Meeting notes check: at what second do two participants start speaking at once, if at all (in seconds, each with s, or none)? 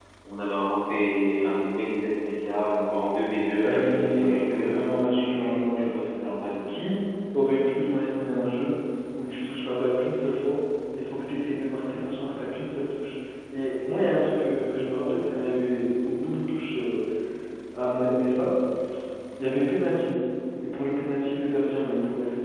3.6 s